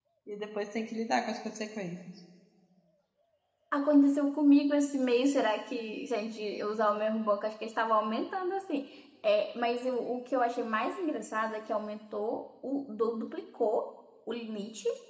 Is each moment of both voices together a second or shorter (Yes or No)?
Yes